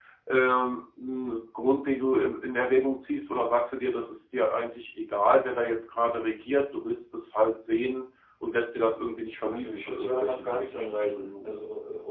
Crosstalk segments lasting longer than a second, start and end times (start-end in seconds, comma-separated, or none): 9.5-11.5